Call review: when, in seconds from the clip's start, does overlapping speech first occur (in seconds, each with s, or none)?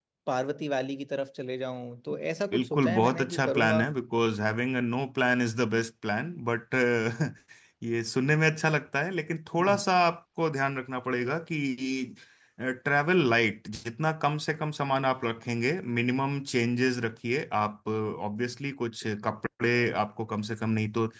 2.5 s